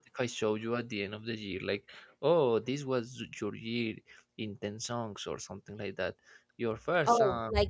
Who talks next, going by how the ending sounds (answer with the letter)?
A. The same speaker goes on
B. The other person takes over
B